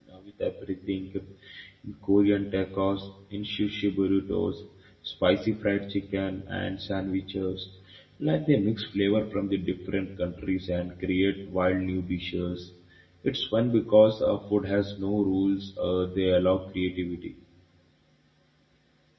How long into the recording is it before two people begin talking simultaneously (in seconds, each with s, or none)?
none